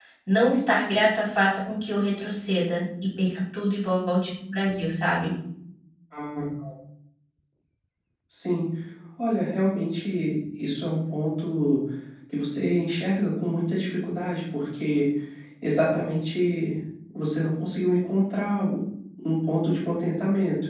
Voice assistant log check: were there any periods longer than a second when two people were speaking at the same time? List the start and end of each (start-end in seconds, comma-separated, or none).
none